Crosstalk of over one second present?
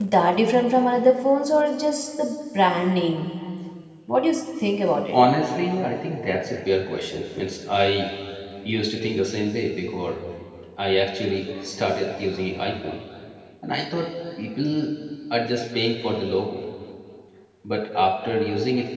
No

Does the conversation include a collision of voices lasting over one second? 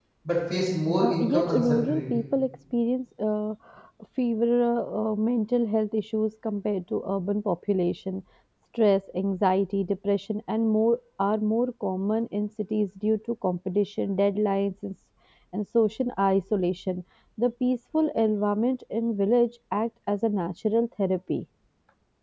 Yes, from 1.0 s

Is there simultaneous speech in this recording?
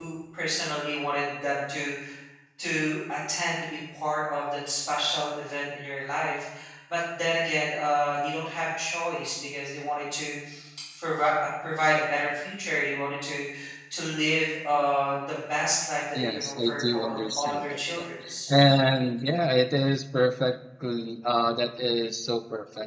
Yes, from 16.1 s

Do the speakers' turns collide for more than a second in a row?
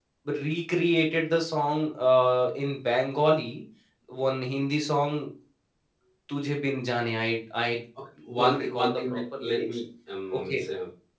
Yes, from 8.4 s

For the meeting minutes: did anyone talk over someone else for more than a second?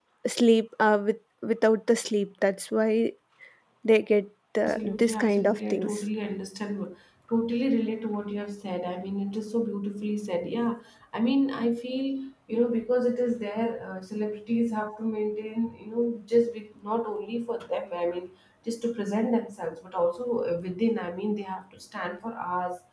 Yes, from 4.7 s

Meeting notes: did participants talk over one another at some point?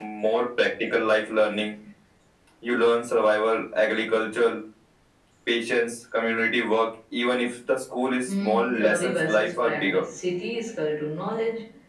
Yes, from 8.3 s

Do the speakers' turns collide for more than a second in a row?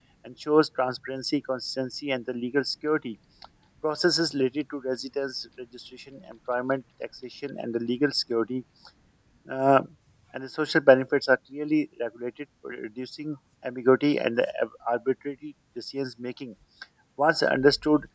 No

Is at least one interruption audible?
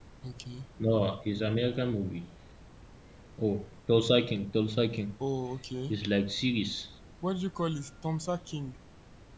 No

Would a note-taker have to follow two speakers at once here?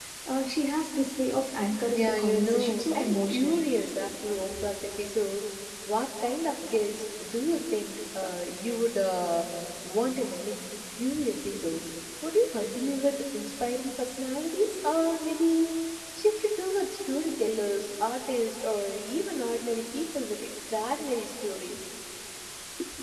Yes, from 1.9 s

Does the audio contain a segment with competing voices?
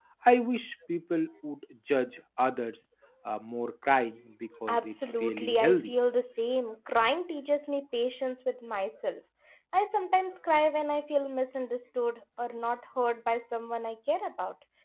Yes, from 4.5 s

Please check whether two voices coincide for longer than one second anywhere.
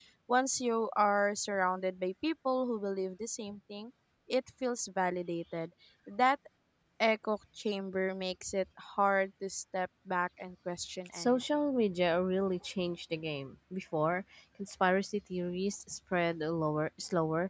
No

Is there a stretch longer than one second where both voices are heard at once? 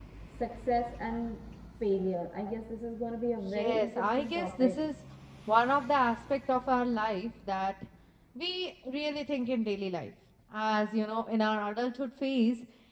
Yes, from 3.5 s

